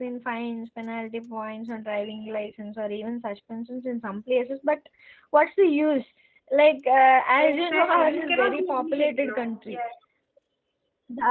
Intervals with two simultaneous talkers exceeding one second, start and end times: 7.4-9.8

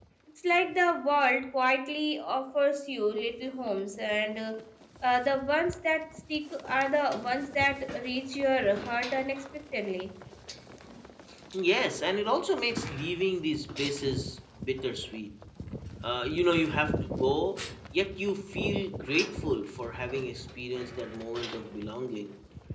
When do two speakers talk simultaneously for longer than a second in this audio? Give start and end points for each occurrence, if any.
none

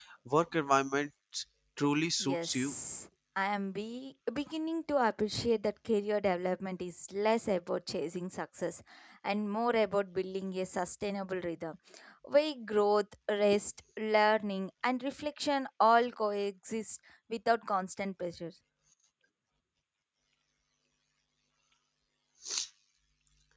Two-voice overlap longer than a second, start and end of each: none

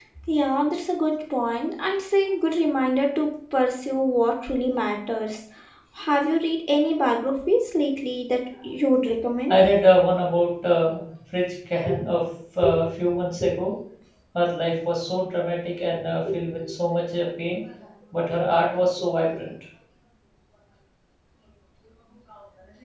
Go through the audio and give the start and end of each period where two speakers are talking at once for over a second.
none

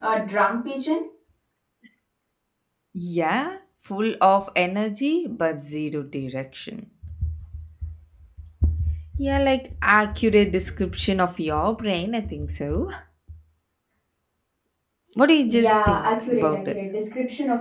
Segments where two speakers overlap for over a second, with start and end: 15.5-16.7

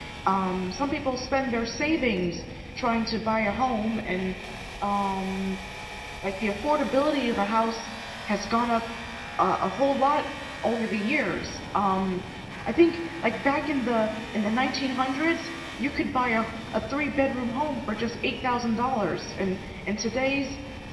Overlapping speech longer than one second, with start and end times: none

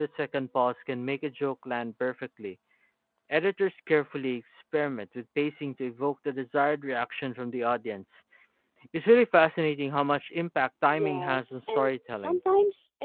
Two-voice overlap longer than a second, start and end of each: 10.9-12.4

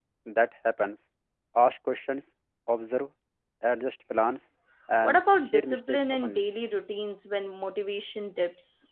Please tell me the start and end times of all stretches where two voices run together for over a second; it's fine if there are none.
5.0-6.4

